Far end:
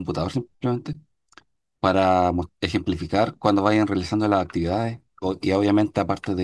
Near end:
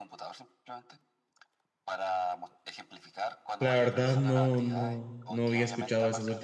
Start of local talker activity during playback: 3.6 s

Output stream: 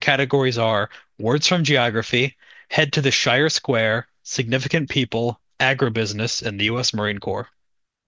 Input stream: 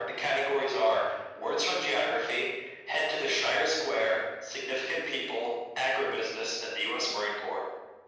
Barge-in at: none

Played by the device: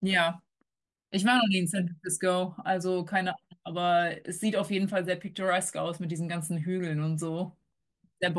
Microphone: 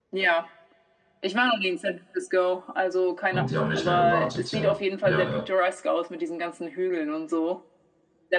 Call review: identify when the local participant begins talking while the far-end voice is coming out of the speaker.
3.3 s

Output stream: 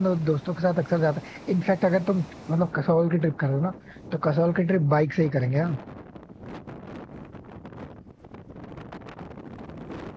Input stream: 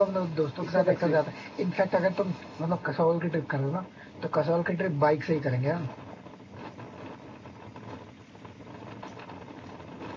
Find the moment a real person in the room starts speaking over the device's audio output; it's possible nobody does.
0.6 s

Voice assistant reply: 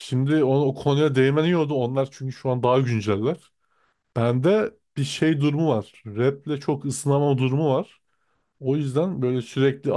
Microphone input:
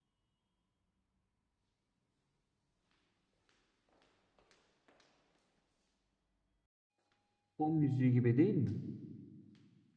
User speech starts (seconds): 7.5 s

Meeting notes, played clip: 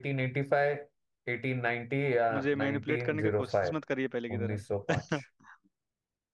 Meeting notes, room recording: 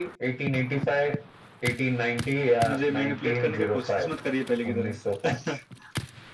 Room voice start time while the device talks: none

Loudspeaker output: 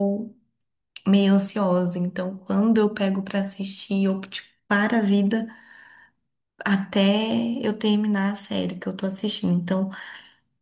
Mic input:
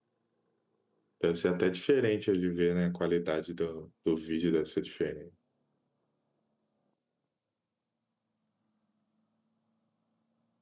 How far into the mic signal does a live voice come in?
1.2 s

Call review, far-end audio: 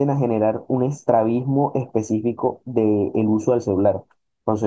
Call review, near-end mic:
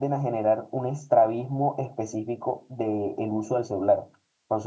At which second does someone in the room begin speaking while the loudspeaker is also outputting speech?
none

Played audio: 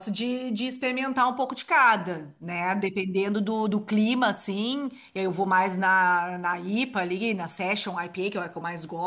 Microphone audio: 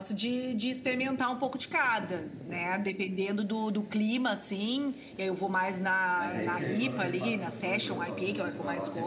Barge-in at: 6.2 s

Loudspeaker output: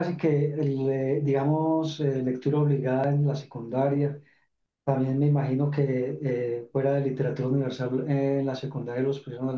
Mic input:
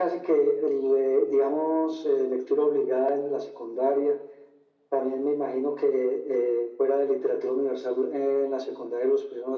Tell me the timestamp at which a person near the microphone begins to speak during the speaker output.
none

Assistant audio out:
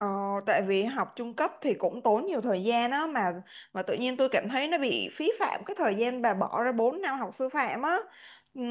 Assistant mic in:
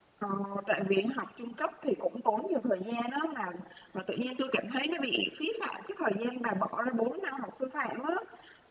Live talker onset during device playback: none

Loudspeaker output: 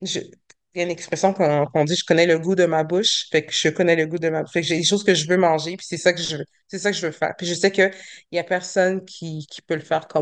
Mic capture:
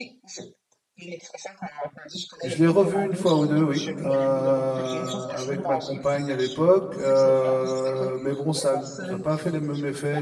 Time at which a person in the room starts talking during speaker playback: 2.4 s

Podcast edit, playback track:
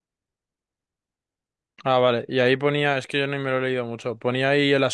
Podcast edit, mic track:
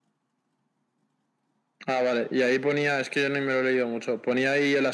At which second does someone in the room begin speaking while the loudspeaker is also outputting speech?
none

